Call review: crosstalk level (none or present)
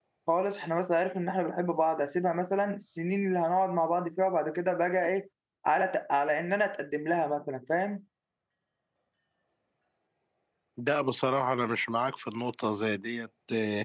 none